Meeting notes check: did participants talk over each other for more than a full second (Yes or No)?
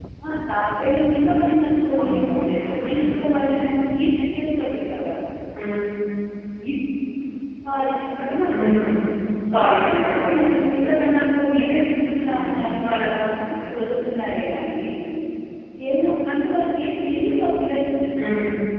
Yes